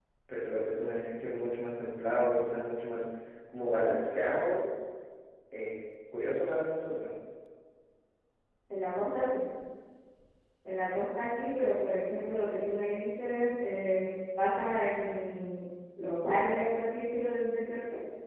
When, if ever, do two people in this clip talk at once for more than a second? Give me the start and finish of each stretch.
none

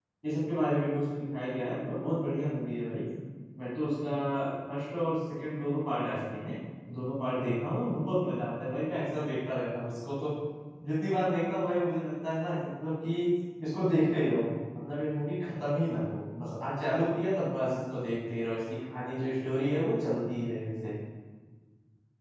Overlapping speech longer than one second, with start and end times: none

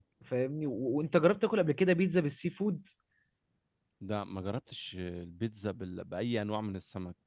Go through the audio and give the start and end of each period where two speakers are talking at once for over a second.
none

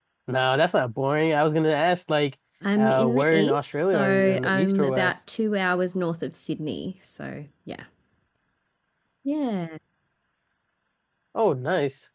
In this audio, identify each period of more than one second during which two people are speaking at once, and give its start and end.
2.8-5.1

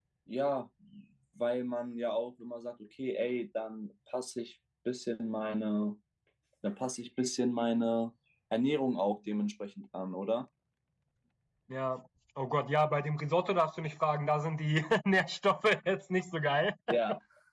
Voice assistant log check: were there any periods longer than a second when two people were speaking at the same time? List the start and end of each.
none

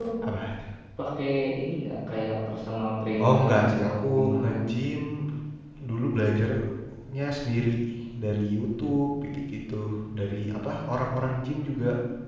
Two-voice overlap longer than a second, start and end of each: 3.2-4.7

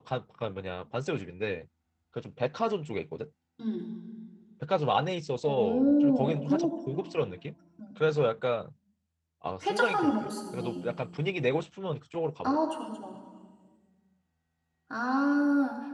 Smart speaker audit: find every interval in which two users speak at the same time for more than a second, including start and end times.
5.5-7.0, 9.6-10.9

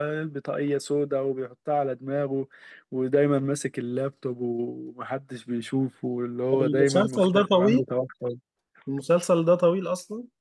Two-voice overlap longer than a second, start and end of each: 6.5-7.8

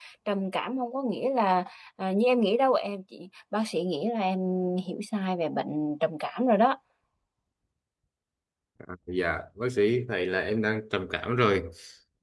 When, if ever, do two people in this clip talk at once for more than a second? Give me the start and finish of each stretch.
none

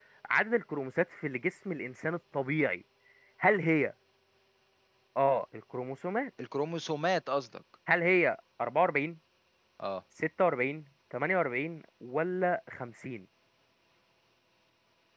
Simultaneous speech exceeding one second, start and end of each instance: none

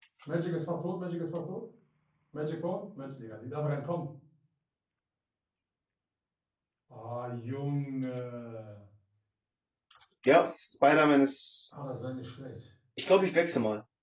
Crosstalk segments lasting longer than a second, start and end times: none

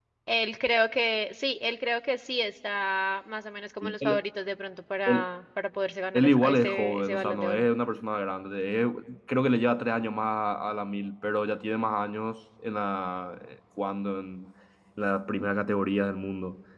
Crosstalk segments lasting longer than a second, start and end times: 6.1-7.7

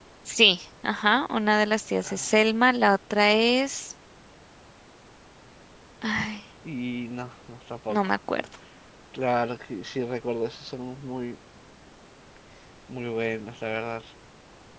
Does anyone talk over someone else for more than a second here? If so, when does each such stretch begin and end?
none

